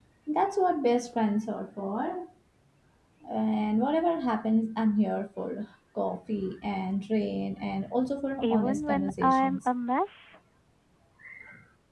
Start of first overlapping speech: 8.4 s

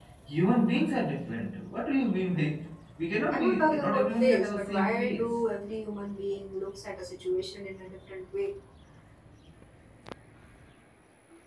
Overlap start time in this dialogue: 3.3 s

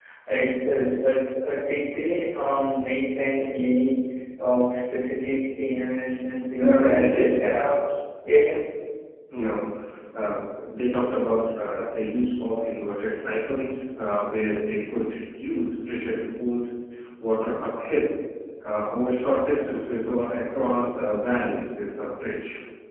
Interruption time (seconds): 6.6 s

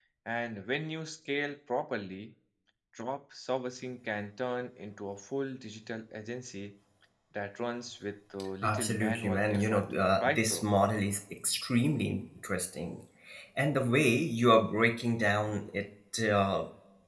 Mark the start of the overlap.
8.6 s

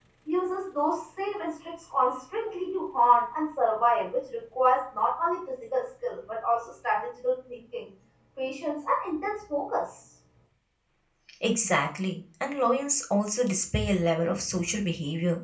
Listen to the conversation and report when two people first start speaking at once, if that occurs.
none

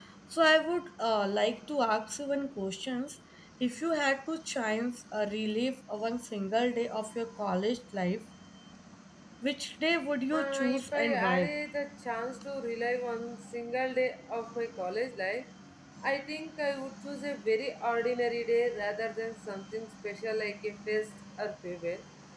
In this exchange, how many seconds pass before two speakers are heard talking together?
10.3 s

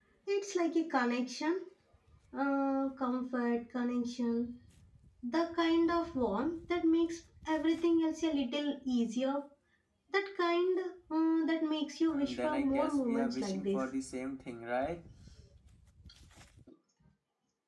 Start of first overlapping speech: 12.1 s

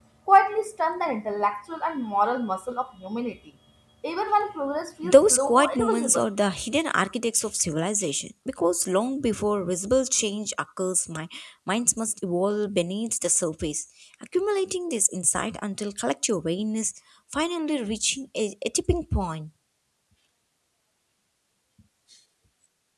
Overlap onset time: 5.0 s

